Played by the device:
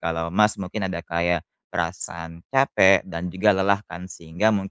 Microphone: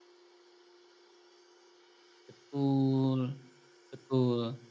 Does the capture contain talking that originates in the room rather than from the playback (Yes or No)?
Yes